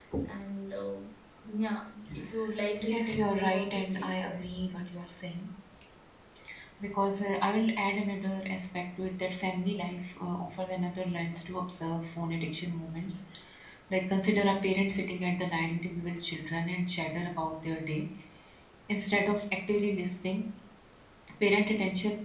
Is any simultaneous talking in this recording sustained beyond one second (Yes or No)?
Yes